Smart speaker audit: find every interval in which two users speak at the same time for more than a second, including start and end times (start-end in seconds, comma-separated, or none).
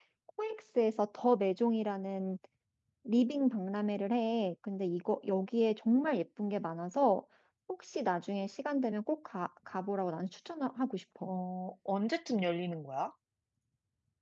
none